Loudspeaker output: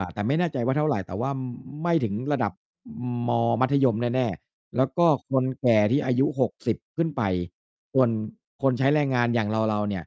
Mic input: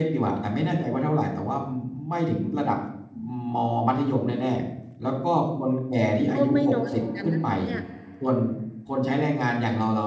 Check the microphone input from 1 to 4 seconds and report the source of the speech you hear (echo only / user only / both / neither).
echo only